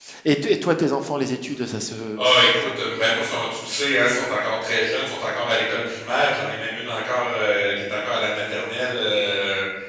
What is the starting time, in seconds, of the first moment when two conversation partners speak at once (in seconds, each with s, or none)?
none